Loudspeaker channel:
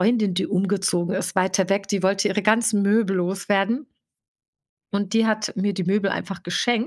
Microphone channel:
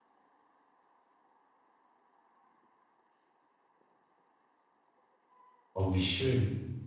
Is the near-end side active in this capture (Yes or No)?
Yes